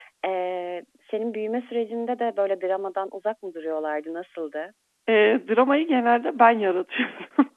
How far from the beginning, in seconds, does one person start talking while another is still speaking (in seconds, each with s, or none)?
none